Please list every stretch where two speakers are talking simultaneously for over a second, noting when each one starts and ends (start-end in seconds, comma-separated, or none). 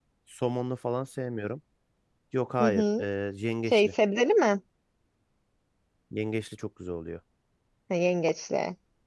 none